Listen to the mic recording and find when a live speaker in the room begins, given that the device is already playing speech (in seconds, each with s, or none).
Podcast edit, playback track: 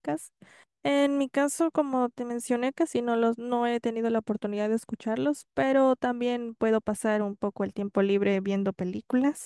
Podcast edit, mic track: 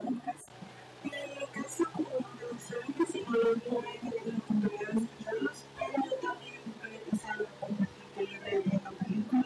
none